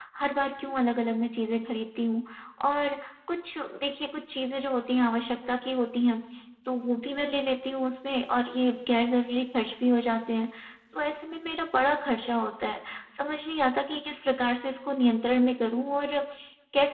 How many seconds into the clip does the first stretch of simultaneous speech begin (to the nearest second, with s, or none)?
none